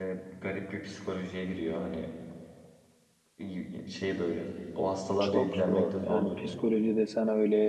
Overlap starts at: 5.2 s

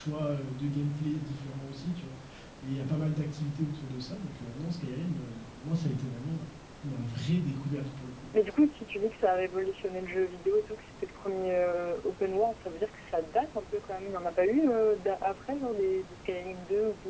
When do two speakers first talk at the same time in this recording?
none

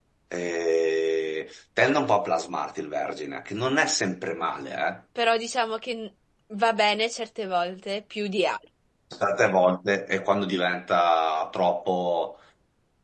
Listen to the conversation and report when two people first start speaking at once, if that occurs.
none

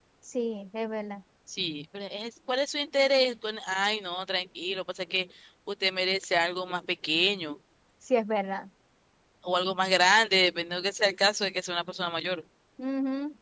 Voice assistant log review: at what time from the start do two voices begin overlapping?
none

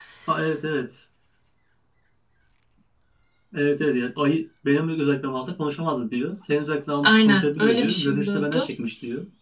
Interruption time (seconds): 7.0 s

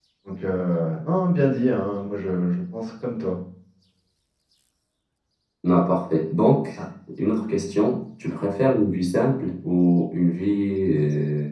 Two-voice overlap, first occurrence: none

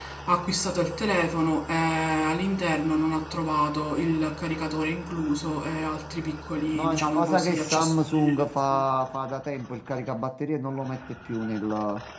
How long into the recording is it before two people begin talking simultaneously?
6.7 s

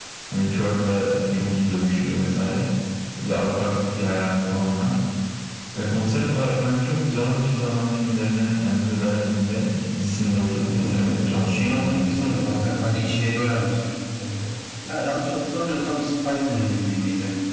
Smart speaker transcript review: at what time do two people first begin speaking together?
10.6 s

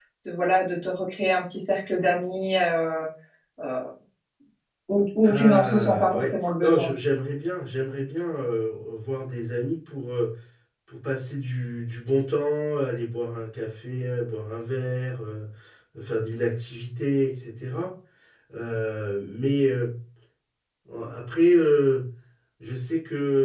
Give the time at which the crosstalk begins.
5.2 s

